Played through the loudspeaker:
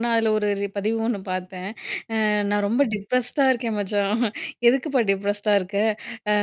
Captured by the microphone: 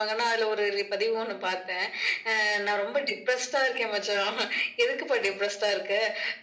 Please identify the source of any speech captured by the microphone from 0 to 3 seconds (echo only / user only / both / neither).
echo only